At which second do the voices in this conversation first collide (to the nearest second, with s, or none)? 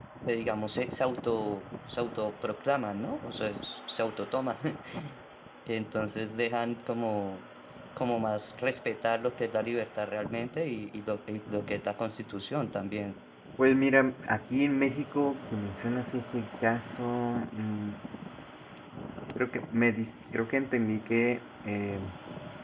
none